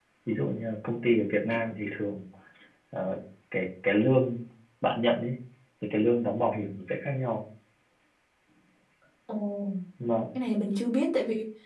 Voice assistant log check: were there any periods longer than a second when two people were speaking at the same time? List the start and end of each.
none

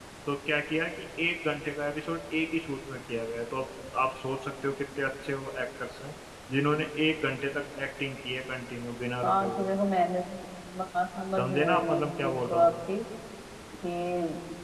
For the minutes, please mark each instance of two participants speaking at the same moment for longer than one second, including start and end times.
11.4-12.7

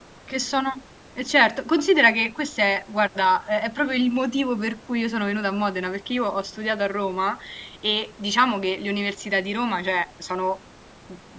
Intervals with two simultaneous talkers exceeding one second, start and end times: none

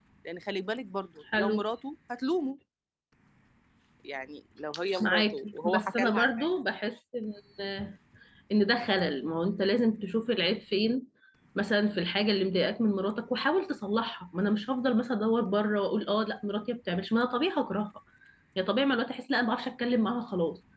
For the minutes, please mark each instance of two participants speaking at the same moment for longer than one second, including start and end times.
5.0-6.5

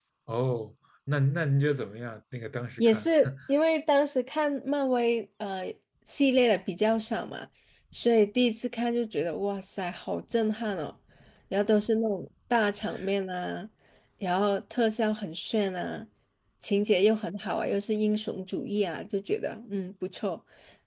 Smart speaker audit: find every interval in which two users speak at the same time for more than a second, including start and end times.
none

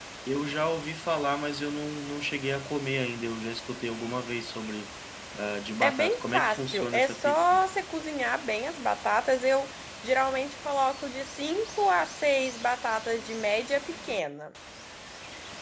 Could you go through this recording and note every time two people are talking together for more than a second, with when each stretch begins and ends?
5.8-7.6

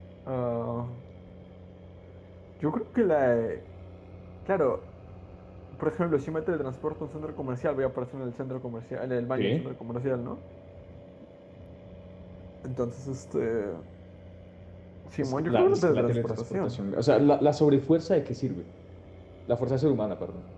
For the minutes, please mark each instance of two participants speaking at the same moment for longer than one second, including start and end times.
15.2-16.8

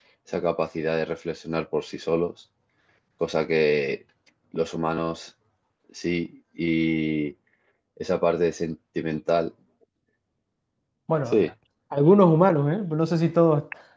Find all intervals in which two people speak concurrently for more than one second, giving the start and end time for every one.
none

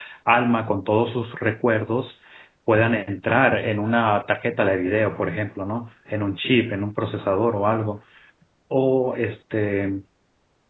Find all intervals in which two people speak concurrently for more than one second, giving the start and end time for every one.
none

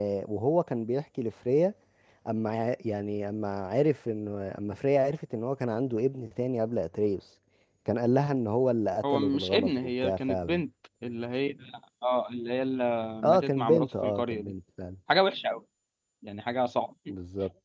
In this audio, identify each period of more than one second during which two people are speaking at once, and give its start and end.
9.1-10.6, 13.2-14.5

